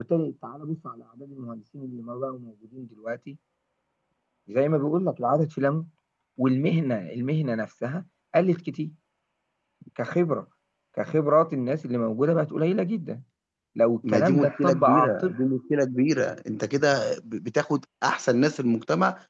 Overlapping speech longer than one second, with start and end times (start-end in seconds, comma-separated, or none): 14.1-15.3